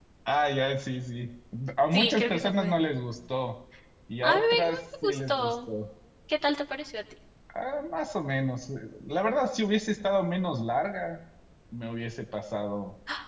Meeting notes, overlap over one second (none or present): present